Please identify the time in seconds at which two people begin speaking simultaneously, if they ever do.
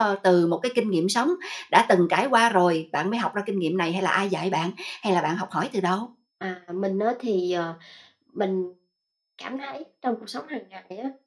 none

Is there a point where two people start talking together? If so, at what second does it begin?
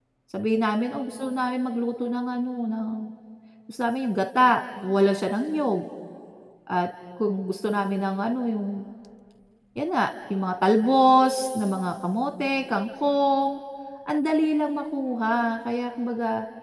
none

